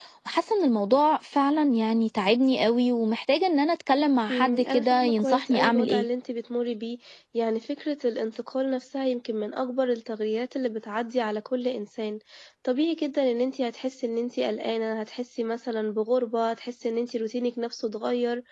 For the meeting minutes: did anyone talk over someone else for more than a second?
Yes, from 4.3 s

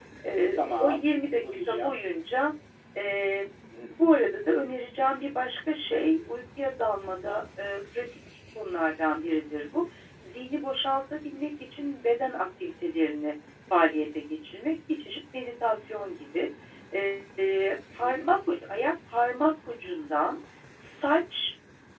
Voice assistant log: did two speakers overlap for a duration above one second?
Yes, from 0.6 s

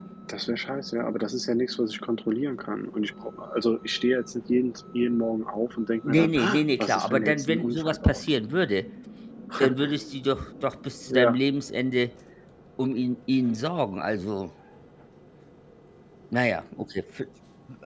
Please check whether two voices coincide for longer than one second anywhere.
Yes, from 6.1 s

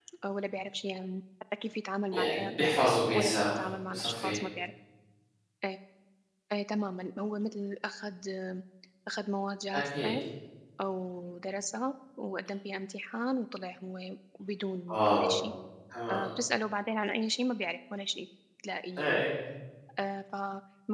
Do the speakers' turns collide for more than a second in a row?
Yes, from 2.1 s

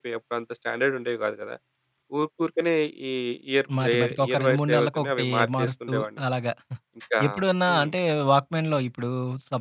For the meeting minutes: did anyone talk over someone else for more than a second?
Yes, from 3.8 s

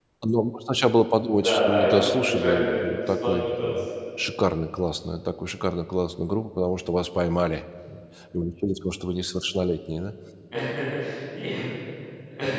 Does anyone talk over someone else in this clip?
Yes, from 1.4 s

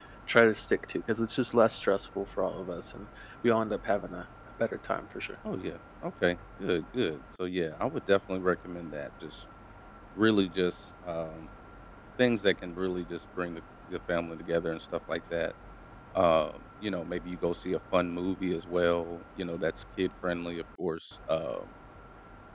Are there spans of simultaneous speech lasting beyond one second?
No

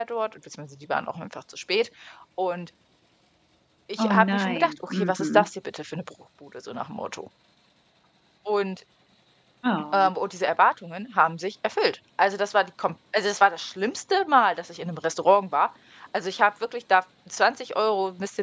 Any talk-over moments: Yes, from 4.0 s

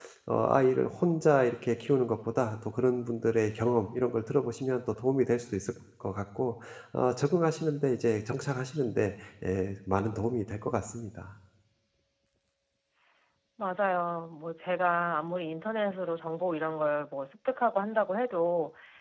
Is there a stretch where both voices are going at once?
No

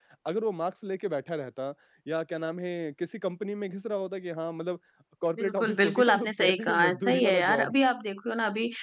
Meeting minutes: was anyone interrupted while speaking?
Yes, from 5.4 s

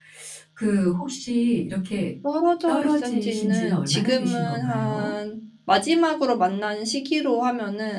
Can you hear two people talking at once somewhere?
Yes, from 2.7 s

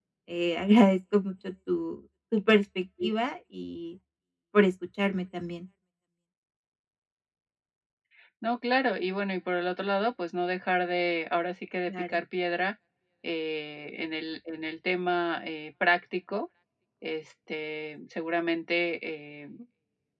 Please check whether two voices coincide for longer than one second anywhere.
No

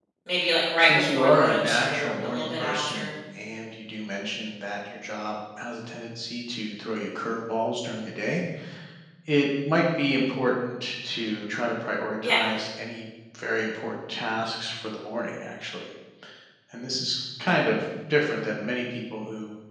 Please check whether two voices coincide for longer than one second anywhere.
Yes, from 0.8 s

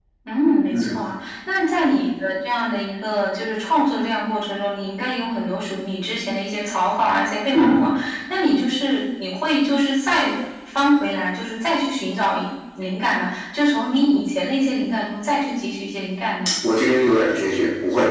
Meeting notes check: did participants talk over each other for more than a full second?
No

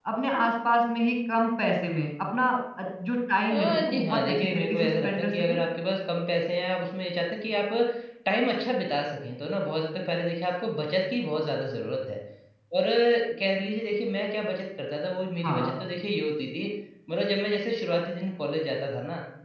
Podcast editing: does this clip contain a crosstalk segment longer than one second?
Yes, from 3.5 s

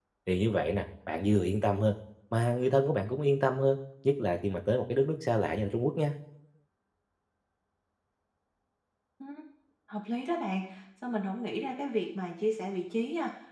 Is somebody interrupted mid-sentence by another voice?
No

